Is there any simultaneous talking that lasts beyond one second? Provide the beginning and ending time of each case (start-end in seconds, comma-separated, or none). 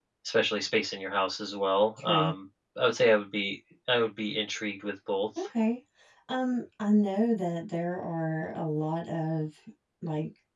none